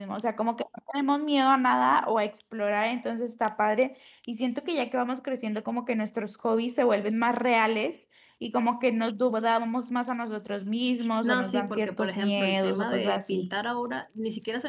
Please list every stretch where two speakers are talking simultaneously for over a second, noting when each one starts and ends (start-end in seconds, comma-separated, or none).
11.2-13.6